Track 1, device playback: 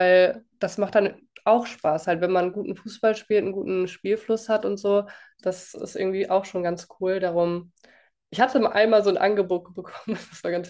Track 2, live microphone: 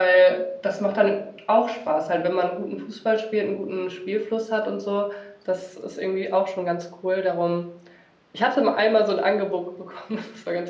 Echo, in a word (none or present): present